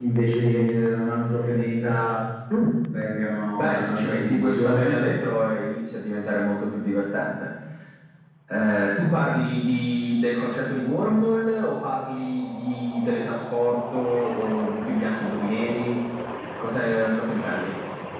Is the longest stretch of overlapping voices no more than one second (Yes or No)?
No